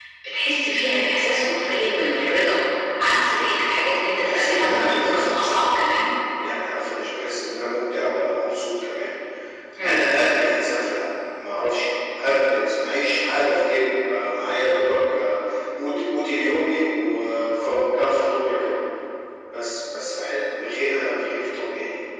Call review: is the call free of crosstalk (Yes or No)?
No